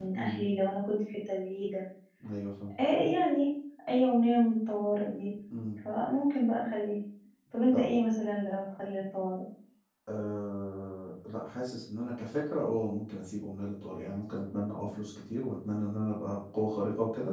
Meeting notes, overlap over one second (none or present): none